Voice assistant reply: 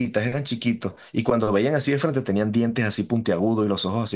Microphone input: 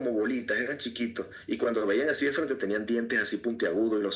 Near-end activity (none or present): none